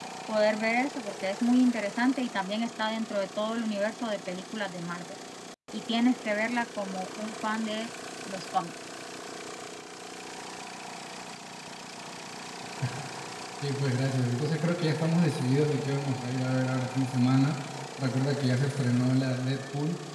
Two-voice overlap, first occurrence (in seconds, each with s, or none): none